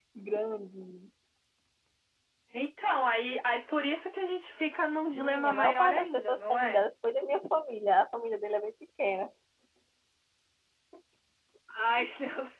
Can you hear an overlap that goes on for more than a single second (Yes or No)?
Yes